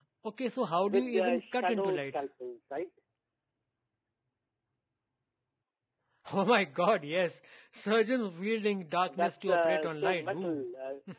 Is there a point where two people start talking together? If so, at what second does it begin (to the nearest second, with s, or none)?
1 s